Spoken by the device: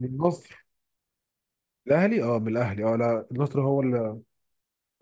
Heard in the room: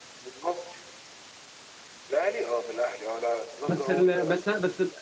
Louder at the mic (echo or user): user